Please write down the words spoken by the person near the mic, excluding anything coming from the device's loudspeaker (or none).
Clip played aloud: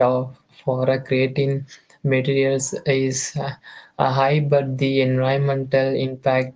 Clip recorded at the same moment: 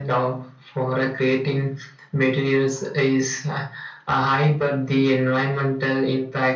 none